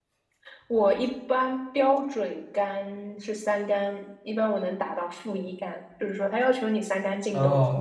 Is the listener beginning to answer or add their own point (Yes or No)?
Yes